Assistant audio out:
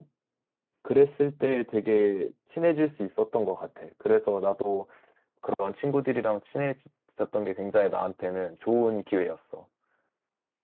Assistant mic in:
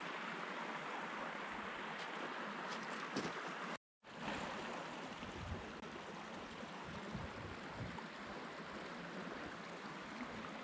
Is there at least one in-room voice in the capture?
No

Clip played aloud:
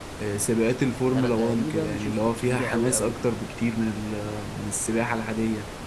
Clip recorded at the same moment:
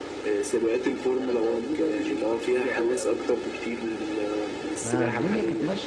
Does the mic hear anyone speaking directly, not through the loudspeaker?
Yes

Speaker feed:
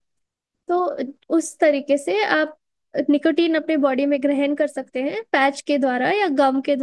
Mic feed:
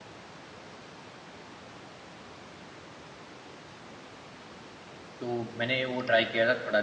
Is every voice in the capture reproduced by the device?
No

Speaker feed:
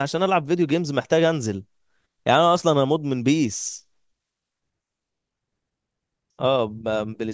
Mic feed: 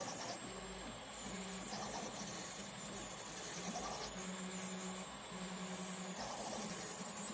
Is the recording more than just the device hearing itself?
No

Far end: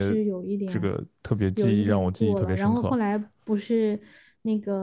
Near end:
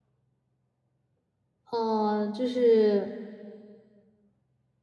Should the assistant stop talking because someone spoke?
Yes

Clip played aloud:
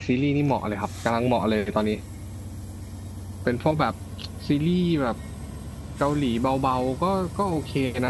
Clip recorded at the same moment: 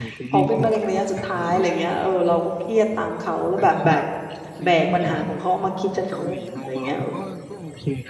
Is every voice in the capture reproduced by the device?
No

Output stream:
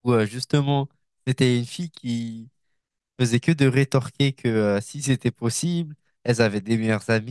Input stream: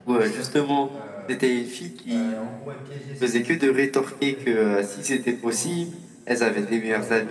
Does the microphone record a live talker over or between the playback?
Yes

